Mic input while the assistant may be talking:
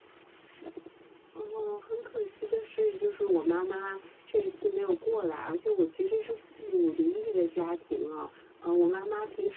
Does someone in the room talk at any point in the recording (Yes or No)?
No